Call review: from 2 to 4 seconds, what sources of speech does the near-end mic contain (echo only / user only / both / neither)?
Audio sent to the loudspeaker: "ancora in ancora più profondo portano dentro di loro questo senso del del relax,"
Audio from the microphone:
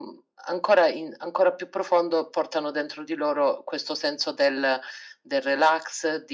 echo only